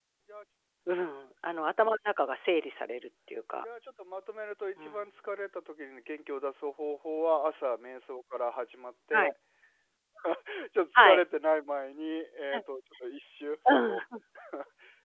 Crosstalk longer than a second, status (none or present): none